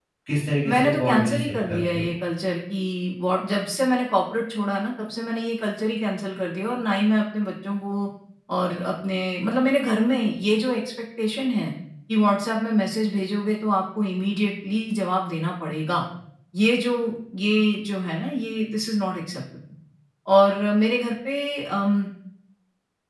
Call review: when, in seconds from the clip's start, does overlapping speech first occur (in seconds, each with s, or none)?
0.7 s